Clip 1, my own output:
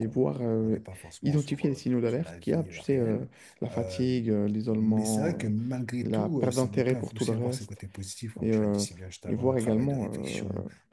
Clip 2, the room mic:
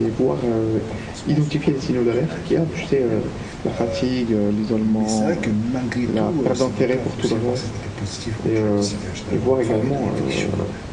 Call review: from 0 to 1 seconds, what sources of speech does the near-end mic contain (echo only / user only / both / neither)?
echo only